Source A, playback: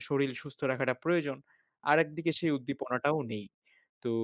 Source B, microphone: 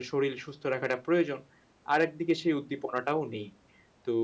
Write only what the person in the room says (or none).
none